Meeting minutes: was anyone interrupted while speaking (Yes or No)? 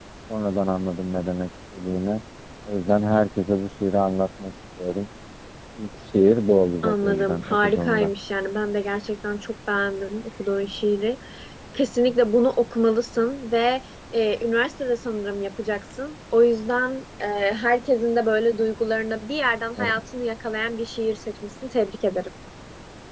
Yes